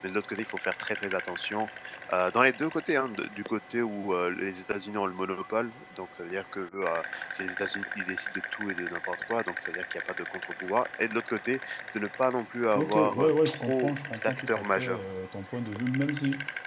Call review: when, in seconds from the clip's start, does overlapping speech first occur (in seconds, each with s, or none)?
12.7 s